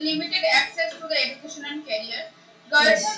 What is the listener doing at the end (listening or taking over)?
listening